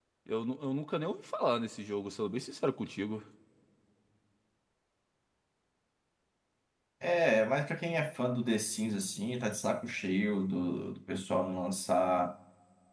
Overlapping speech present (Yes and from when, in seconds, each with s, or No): No